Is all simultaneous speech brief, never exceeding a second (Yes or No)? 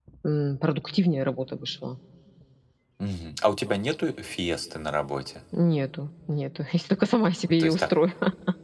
Yes